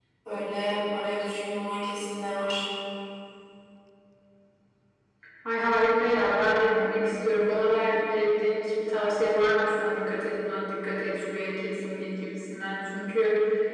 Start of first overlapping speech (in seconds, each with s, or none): none